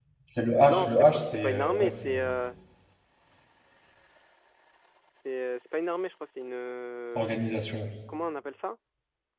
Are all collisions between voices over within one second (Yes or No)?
No